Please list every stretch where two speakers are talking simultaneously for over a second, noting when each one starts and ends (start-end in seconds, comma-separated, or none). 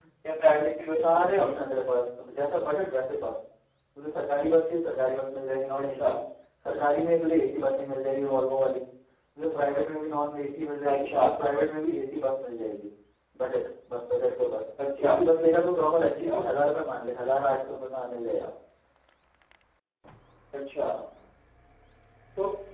none